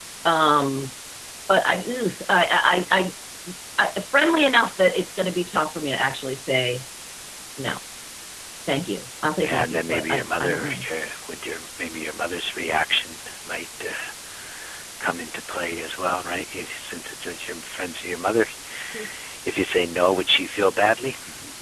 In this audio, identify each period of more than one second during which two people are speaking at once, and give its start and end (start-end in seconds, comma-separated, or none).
9.4-10.8